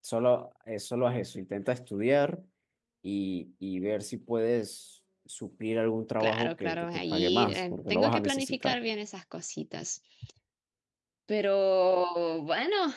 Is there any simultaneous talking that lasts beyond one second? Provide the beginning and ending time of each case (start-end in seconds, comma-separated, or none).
6.2-8.8